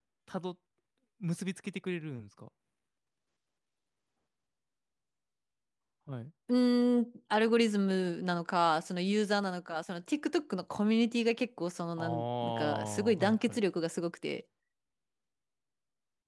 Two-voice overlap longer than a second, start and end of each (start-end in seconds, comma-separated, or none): 12.0-13.6